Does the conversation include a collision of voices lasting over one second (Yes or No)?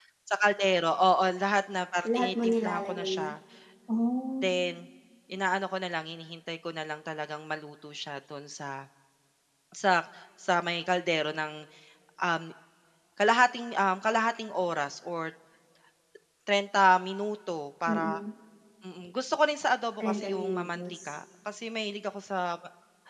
Yes